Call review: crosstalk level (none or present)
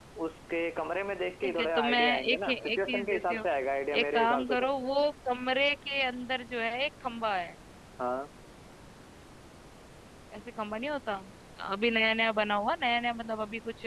present